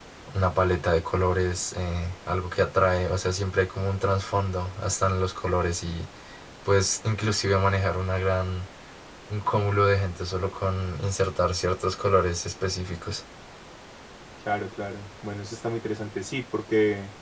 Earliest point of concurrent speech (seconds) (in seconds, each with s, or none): none